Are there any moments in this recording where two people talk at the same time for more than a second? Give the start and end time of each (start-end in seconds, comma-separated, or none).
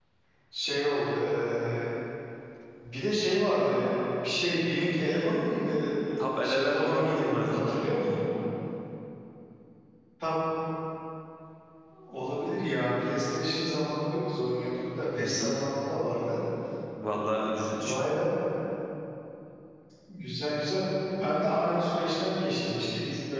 6.4-7.8